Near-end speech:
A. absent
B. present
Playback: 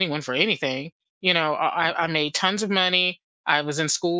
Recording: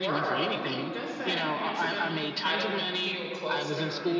B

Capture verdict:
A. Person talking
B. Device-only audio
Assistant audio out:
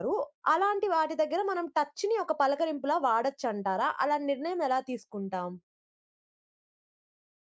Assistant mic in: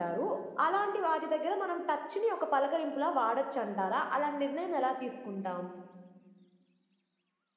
B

